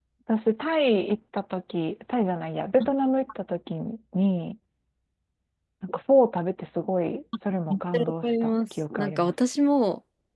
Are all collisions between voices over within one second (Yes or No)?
No